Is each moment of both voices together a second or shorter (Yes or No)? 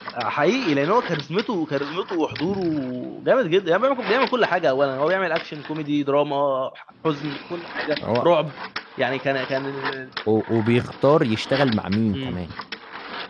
Yes